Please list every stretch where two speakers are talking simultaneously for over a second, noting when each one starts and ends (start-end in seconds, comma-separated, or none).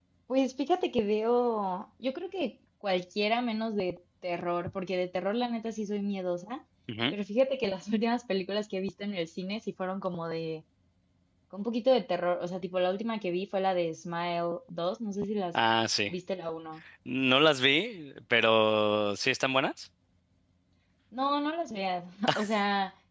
none